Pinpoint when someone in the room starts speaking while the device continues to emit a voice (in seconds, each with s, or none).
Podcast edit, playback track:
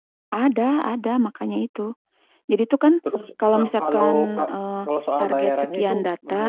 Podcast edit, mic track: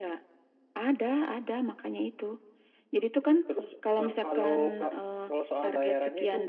none